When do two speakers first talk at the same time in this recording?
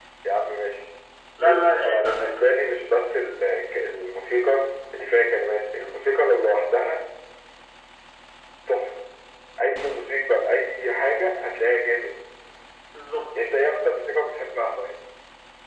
1.4 s

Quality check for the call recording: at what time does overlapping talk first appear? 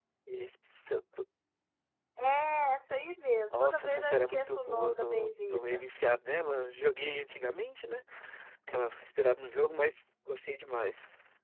3.5 s

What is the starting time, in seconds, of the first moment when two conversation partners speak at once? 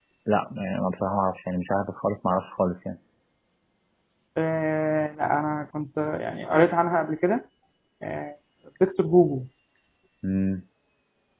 none

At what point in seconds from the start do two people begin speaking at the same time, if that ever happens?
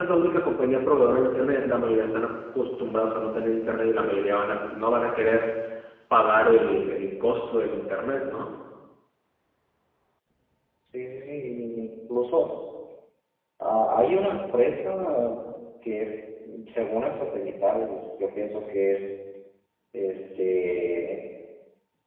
none

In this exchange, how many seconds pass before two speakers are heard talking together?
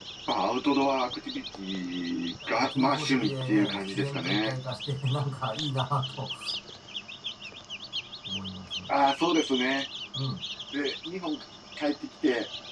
2.4 s

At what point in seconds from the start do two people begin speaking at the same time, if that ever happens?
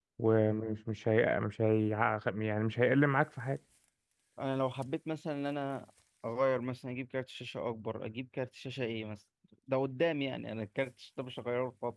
none

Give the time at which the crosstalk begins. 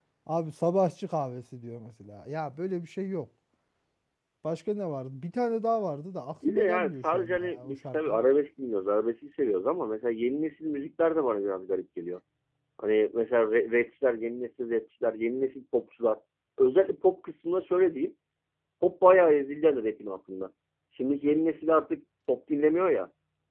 6.4 s

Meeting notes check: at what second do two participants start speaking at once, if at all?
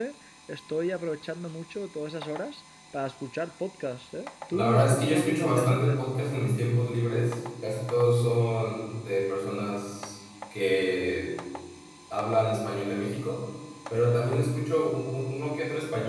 4.5 s

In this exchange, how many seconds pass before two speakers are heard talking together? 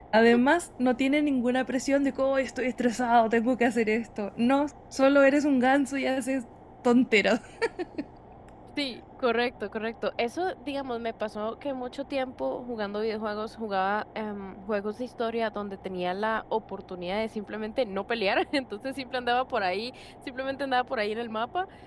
none

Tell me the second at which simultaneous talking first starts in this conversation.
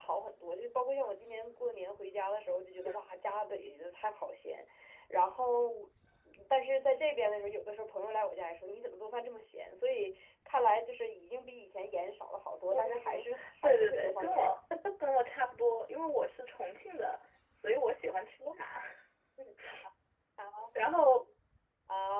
12.7 s

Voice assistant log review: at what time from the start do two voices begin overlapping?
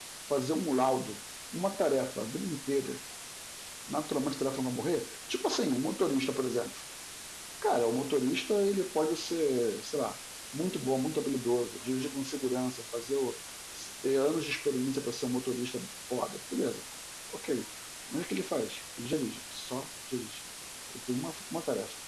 none

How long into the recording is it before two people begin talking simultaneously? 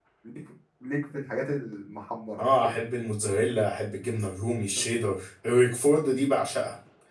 none

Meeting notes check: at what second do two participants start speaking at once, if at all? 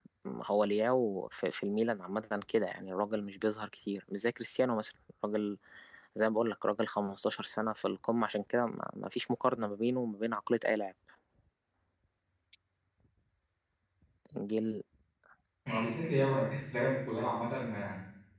none

